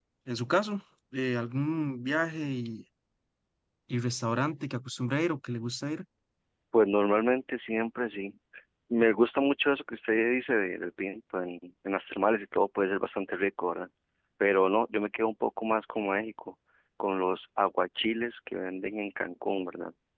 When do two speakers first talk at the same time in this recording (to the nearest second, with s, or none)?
none